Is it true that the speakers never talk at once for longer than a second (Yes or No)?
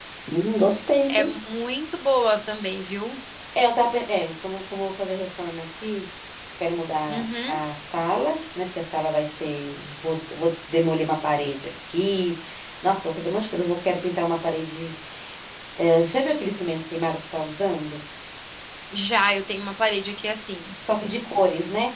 Yes